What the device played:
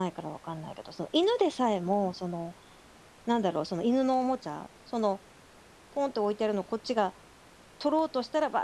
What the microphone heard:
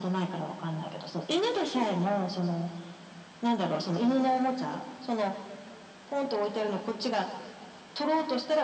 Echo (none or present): present